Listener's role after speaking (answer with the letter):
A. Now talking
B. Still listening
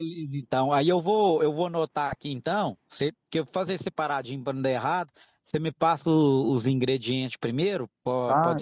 A